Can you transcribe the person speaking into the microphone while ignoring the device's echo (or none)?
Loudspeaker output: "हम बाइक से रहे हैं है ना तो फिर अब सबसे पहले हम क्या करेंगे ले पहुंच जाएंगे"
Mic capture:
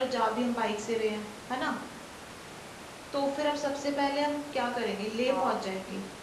हाँ